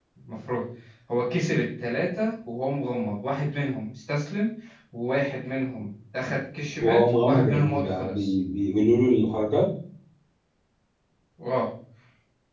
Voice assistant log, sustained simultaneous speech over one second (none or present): present